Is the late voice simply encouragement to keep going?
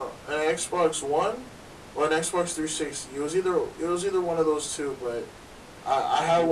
Yes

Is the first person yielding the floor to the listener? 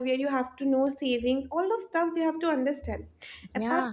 No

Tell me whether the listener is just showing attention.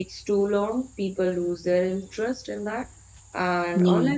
Yes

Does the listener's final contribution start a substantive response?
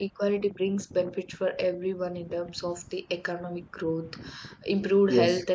No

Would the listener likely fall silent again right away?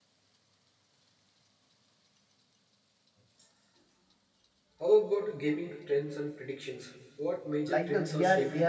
No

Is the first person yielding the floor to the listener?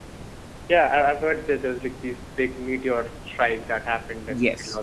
Yes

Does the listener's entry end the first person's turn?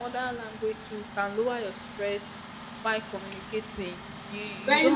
No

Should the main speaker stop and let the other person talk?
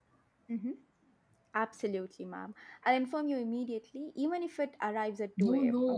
Yes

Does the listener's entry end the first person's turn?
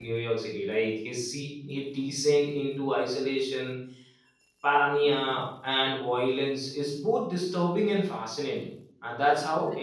Yes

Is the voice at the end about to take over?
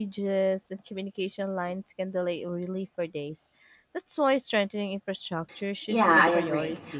Yes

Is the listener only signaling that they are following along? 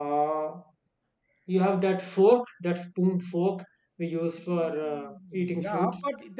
No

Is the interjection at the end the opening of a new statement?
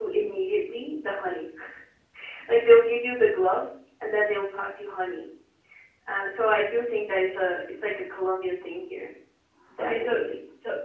Yes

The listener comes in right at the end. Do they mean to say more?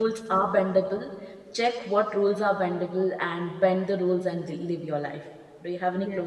Yes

